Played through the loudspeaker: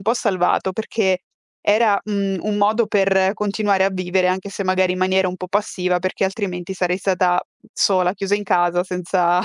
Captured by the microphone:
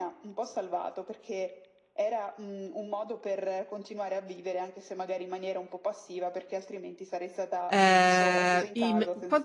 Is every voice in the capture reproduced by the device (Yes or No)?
No